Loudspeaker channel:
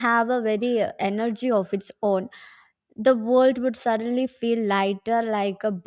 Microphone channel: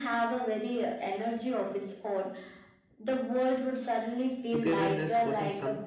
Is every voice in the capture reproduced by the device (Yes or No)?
No